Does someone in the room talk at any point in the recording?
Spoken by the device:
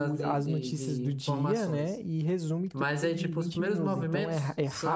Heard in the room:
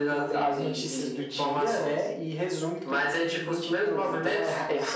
No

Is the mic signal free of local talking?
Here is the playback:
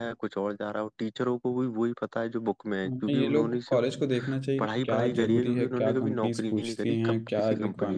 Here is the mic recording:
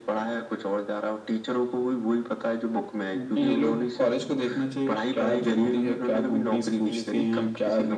Yes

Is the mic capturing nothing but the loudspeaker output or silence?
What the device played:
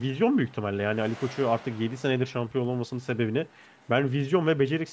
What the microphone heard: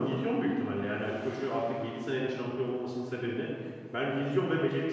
Yes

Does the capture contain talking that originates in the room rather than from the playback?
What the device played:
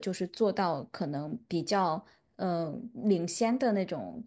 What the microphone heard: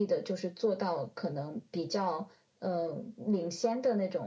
No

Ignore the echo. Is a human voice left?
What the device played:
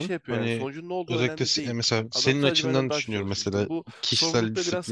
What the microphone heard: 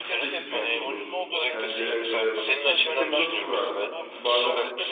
Yes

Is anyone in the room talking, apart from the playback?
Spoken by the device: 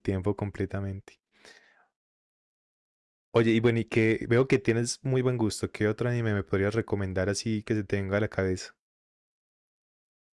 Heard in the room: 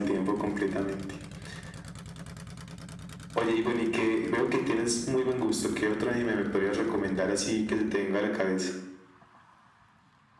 No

